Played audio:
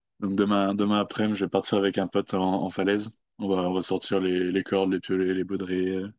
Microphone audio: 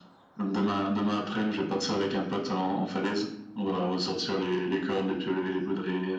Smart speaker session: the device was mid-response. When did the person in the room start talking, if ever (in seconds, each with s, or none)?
none